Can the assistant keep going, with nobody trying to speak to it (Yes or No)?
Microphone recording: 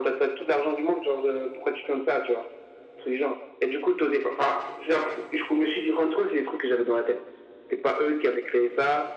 Yes